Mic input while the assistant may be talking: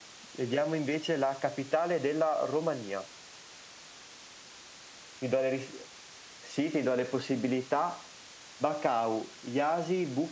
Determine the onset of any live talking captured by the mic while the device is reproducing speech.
none

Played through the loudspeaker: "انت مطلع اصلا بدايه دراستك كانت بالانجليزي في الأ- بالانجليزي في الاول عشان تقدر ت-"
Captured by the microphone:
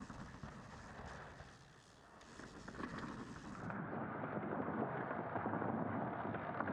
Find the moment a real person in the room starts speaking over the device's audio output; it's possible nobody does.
none

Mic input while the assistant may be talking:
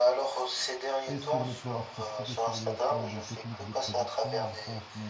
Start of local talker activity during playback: 1.1 s

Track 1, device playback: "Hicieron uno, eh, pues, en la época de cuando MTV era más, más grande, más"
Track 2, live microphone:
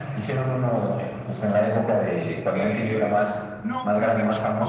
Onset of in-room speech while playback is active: 2.5 s

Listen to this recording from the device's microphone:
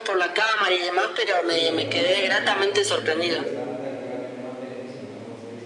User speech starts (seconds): 1.4 s

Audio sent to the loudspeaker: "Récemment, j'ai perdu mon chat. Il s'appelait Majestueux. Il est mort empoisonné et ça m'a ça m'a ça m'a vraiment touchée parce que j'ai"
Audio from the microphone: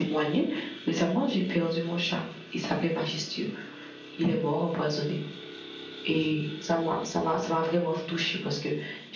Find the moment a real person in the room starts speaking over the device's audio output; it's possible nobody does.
none

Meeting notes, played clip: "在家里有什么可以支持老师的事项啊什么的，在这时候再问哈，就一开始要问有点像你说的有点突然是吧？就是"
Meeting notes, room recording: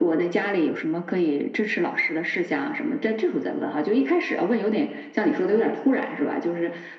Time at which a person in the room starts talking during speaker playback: none

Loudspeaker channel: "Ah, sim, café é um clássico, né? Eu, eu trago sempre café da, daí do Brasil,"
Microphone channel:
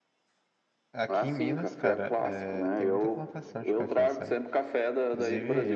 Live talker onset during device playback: 0.9 s

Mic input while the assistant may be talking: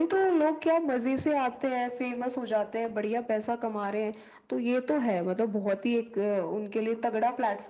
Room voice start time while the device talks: none

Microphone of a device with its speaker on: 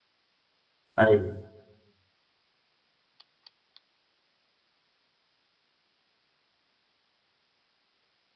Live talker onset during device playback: 1.0 s

